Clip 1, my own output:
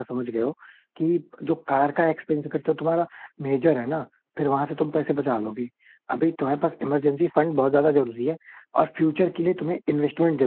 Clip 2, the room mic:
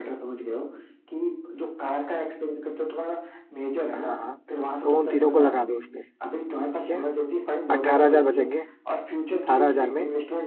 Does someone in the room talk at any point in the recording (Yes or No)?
Yes